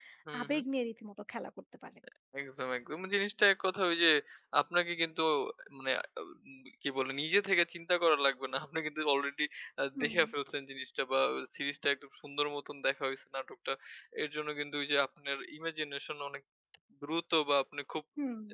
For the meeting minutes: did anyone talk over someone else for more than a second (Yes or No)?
No